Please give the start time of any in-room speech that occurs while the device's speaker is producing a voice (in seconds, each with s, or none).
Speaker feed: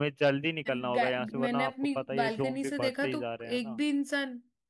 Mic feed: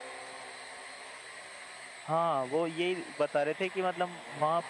2.1 s